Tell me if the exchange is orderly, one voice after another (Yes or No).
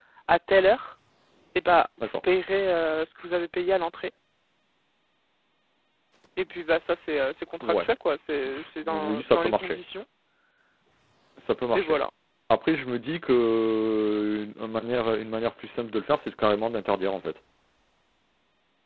No